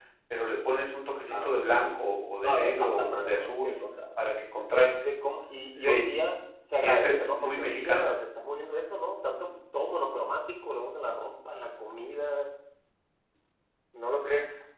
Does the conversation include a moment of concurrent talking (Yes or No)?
Yes